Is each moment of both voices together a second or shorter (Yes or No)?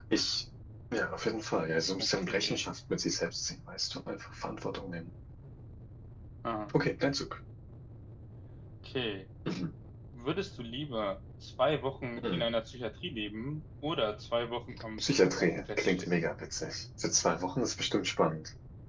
No